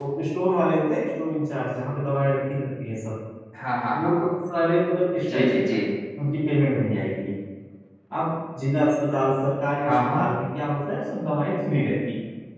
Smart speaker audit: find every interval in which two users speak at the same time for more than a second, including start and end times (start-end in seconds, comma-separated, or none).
none